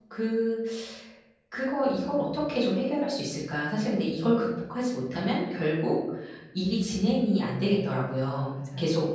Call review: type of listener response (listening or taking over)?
listening